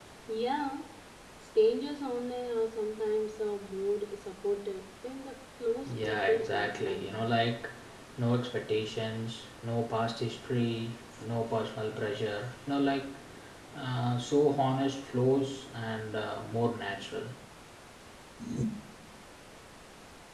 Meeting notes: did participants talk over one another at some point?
Yes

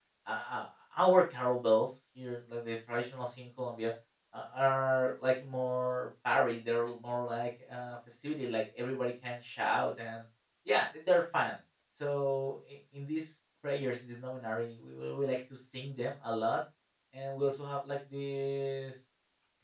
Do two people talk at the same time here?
No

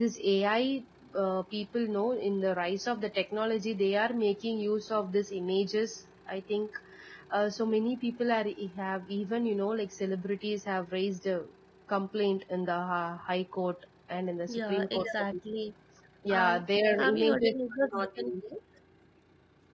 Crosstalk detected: Yes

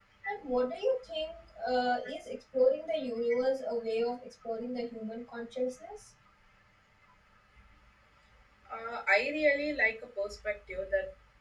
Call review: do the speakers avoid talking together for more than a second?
Yes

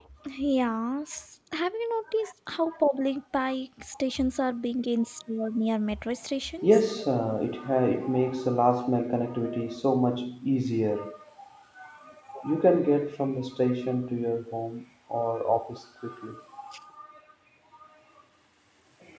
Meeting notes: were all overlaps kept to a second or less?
Yes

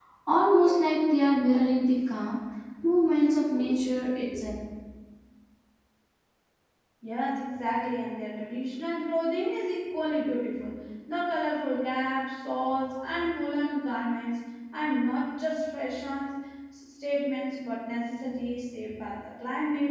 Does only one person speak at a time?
Yes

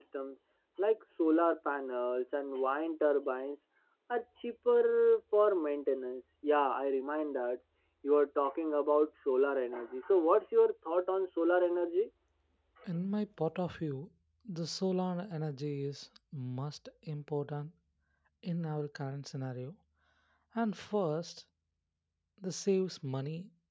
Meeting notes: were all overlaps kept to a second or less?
Yes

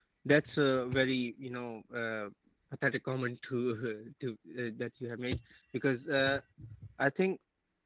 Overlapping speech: No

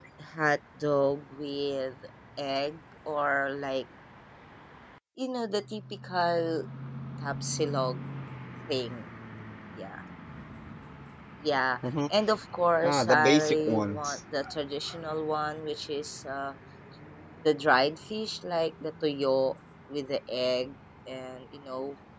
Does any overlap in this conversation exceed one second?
Yes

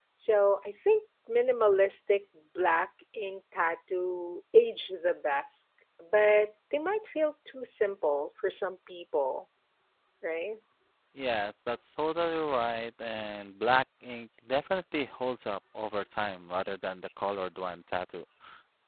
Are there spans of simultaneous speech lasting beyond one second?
No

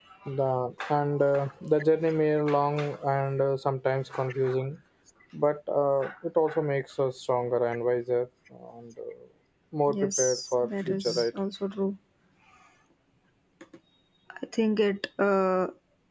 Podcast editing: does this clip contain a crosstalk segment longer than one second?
Yes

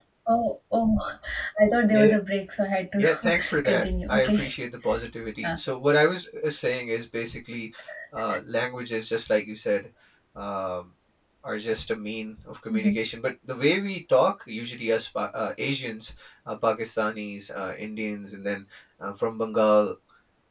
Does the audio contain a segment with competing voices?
Yes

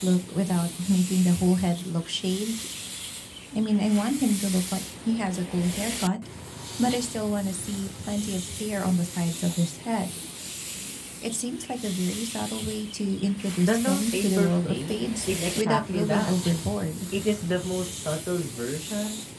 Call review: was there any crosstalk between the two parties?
Yes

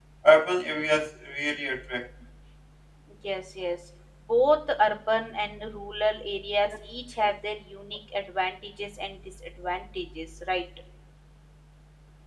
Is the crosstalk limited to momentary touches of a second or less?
Yes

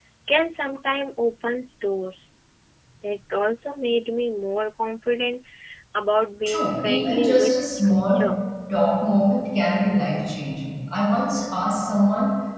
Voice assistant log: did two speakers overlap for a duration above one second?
Yes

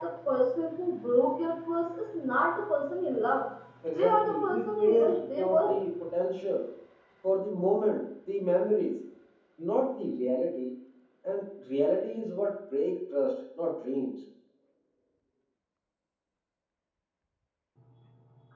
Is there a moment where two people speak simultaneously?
Yes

